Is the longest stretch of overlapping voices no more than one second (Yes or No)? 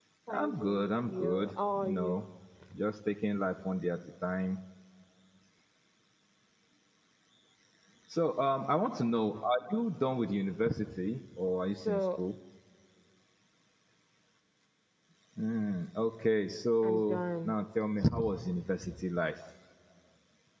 No